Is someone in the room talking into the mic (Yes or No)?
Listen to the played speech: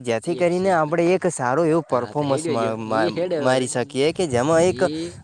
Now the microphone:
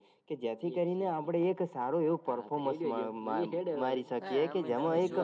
Yes